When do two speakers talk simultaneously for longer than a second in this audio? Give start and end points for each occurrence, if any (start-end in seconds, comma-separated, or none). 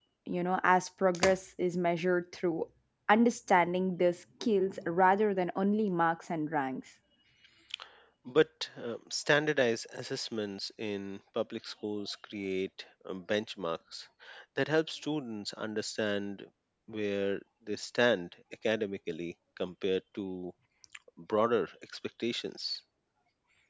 none